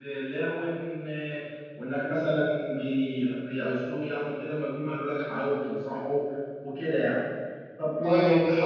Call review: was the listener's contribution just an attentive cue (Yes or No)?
Yes